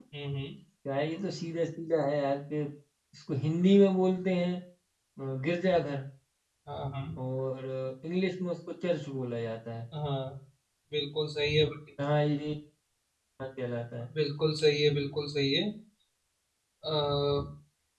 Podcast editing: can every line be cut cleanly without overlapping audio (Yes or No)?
Yes